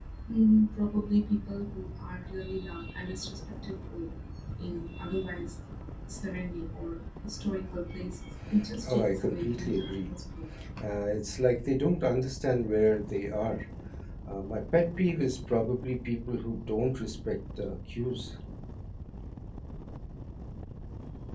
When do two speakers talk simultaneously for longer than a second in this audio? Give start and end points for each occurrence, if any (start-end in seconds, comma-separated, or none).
8.8-10.1